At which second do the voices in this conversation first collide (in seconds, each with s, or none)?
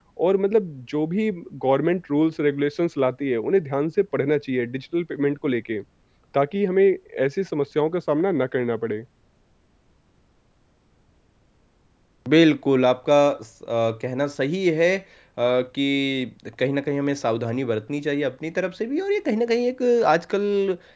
none